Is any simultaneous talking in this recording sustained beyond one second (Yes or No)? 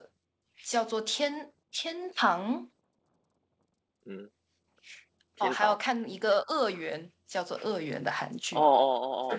No